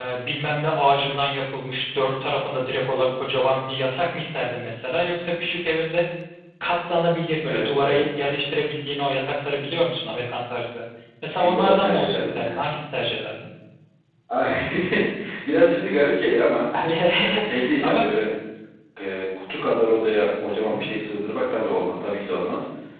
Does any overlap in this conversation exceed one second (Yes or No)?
Yes